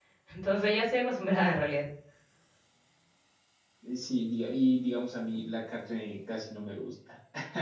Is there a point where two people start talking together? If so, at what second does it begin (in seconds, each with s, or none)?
none